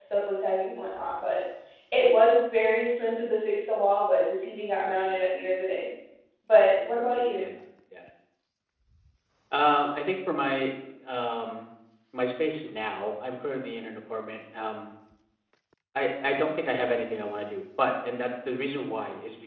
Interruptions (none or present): none